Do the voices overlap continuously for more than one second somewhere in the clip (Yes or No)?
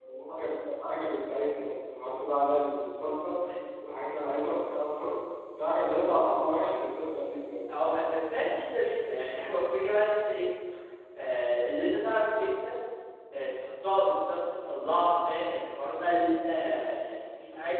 No